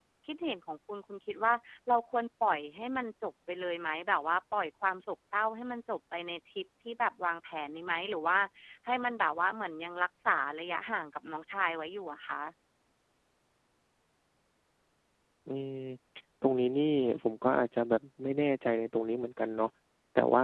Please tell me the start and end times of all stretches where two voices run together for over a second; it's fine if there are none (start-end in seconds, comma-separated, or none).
none